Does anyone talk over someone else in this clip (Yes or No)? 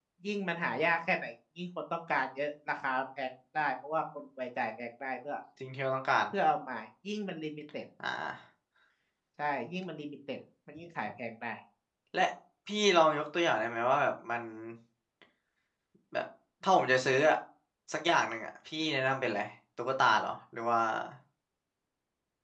No